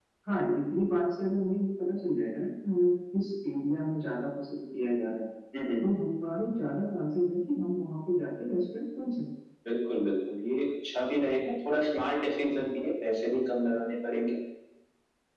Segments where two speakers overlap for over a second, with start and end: none

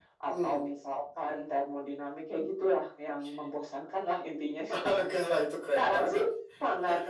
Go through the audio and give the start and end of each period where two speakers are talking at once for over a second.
none

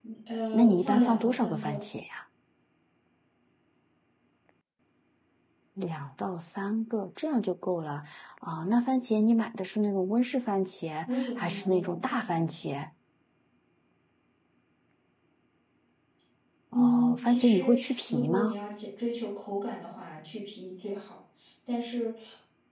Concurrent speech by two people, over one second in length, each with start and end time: 0.5-1.8, 11.1-12.7, 16.7-18.6

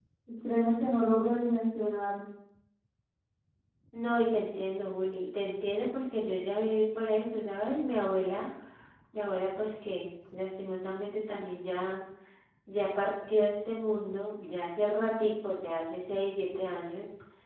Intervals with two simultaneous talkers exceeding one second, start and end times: none

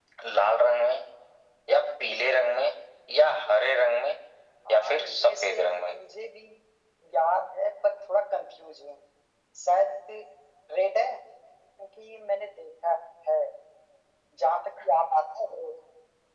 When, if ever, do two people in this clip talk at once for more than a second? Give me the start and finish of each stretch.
4.7-5.9

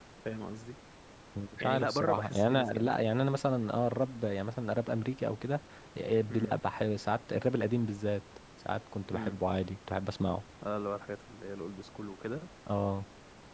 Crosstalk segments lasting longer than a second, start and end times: 1.6-3.0

